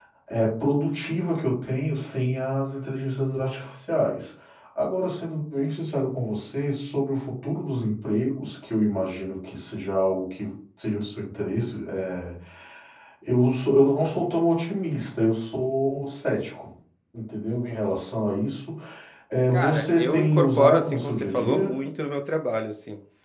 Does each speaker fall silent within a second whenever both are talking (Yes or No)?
No